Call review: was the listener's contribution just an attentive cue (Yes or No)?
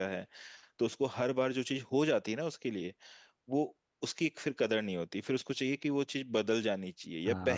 No